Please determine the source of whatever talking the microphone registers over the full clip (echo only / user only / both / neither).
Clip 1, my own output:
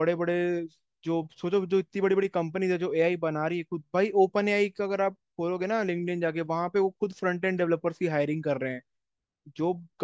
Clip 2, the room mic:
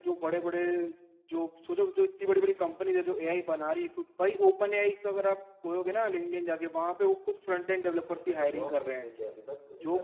both